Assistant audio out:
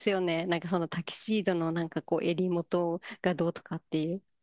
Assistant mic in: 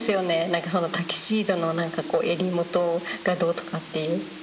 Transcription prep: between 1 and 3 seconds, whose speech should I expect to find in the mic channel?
echo only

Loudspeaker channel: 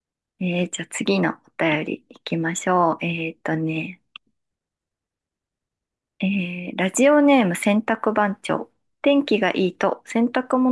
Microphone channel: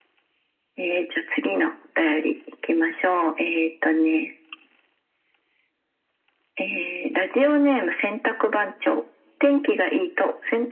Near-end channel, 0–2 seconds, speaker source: echo only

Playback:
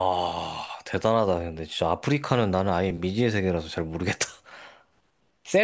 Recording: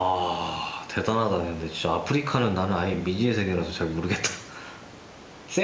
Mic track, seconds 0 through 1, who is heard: echo only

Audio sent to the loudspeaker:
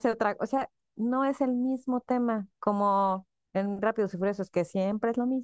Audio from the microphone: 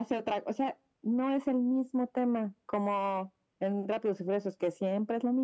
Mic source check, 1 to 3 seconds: echo only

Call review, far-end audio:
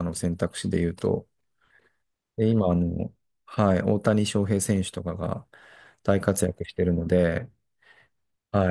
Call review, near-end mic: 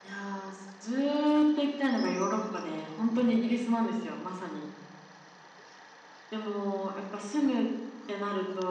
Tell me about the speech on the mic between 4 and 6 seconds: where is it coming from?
user only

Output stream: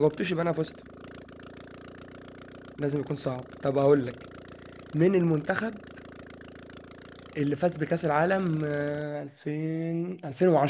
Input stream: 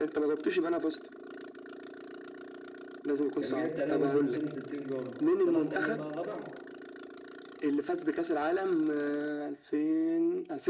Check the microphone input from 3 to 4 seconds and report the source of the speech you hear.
both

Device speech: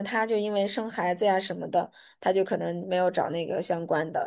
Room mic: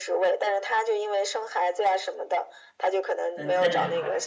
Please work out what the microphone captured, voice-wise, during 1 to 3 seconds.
echo only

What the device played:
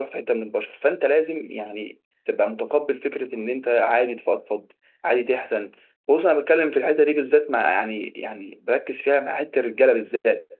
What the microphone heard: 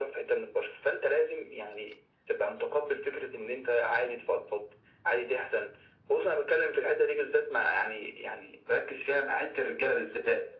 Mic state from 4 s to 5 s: echo only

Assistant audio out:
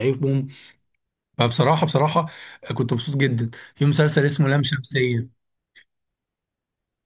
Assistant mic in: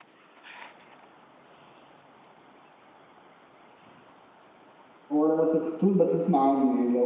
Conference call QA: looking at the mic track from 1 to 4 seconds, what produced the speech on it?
neither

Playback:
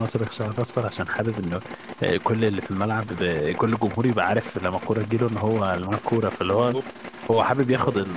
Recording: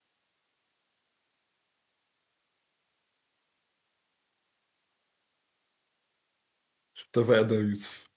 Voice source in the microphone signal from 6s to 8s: user only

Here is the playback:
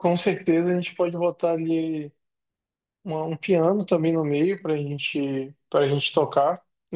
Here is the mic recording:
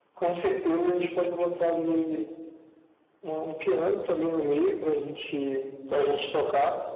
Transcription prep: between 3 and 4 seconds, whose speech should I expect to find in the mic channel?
echo only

